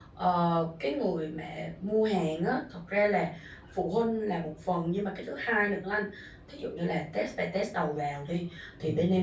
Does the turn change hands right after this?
No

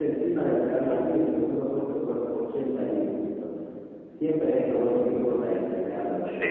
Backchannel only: No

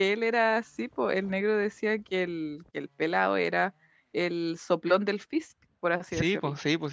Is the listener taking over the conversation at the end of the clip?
Yes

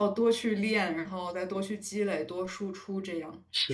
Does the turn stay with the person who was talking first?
No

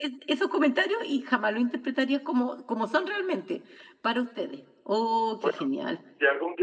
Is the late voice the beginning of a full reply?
Yes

